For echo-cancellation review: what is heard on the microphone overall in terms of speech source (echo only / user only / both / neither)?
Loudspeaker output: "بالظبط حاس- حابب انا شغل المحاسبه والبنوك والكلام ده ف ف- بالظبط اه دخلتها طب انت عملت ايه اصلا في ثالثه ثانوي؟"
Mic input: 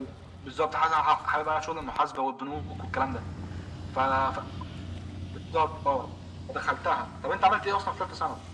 echo only